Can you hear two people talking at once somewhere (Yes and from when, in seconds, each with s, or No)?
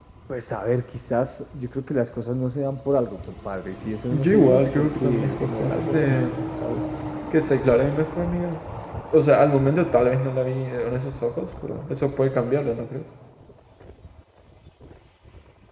Yes, from 4.1 s